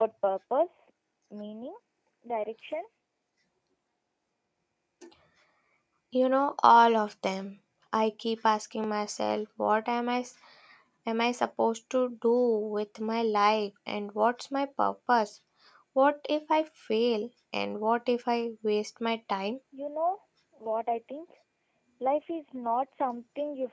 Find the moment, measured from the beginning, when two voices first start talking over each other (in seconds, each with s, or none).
none